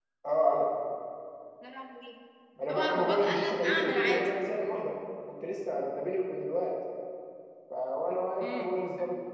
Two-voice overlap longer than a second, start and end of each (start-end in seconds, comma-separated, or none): 2.7-4.3